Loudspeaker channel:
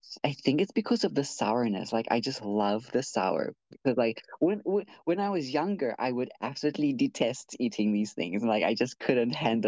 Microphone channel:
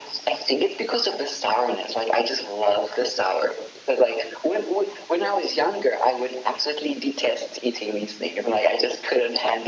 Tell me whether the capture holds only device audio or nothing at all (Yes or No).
Yes